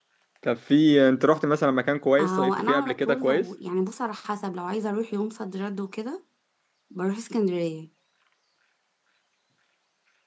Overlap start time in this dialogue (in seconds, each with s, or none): 2.2 s